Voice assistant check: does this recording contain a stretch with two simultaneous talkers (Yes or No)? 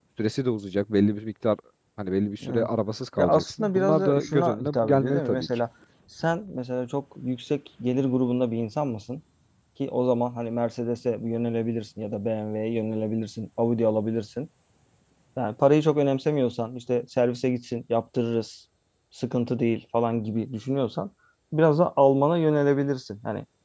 Yes